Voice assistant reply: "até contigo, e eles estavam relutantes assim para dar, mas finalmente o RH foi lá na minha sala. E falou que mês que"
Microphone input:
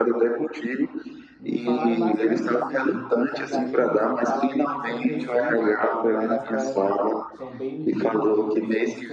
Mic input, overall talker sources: both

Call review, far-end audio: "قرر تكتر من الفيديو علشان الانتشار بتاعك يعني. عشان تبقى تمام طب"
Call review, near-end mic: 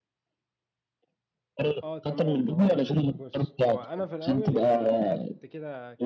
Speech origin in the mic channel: both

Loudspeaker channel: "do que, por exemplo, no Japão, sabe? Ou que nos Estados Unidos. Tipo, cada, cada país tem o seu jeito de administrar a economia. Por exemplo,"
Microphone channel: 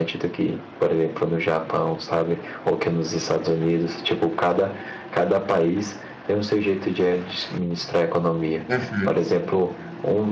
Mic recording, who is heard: both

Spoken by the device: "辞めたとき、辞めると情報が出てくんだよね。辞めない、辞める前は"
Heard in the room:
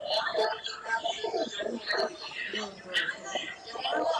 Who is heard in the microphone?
both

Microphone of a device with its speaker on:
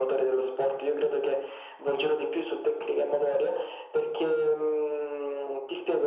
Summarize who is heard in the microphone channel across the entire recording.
echo only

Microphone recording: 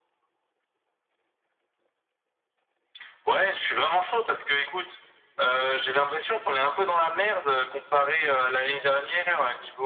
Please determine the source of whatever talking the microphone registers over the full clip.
echo only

